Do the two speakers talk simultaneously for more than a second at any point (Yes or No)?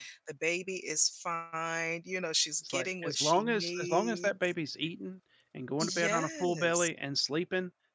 Yes